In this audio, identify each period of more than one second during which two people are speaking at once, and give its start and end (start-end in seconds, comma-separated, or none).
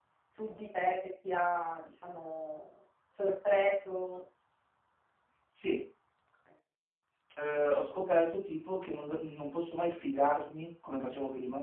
none